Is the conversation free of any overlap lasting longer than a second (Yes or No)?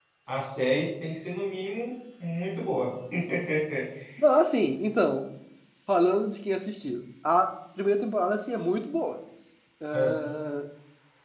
Yes